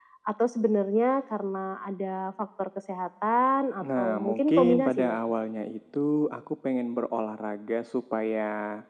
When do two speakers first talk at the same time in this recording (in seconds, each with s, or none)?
3.8 s